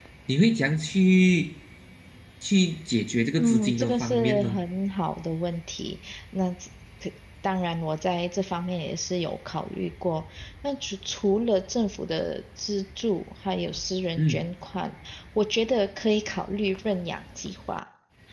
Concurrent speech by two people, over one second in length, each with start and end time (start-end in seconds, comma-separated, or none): 3.4-4.6